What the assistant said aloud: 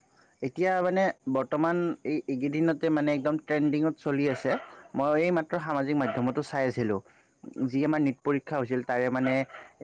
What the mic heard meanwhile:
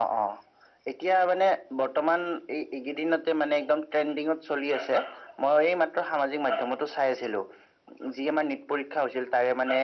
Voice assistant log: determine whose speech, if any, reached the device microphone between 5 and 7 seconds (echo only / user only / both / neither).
echo only